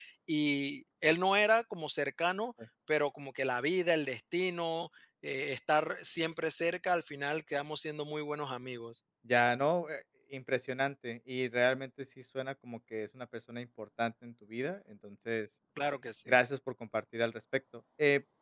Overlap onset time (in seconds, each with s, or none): none